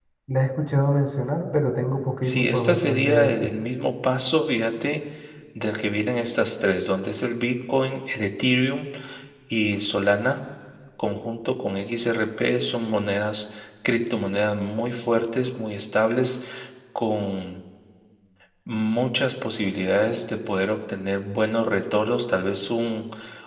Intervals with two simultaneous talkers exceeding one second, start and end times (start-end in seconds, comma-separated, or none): 2.2-3.5